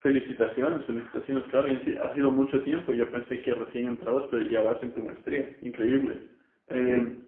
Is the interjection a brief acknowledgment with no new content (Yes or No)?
Yes